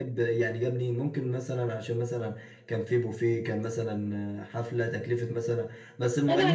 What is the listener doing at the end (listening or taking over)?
taking over